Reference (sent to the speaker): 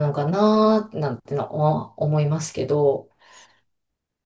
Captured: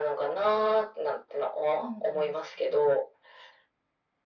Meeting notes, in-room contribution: present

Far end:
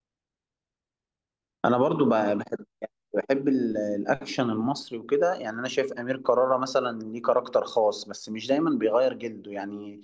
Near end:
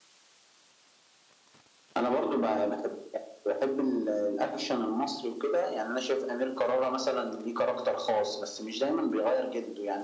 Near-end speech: none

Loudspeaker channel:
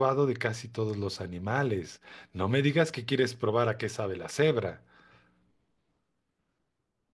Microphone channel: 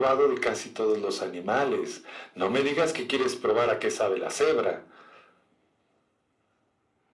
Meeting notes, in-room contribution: none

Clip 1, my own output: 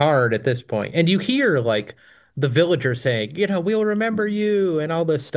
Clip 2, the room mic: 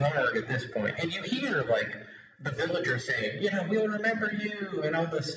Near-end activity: none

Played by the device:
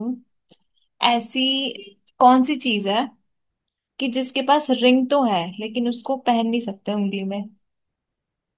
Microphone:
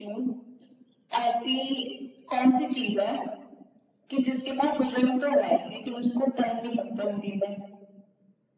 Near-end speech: none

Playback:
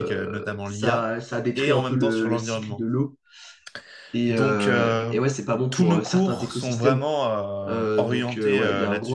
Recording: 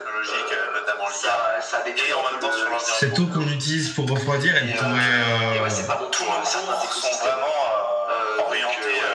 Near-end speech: present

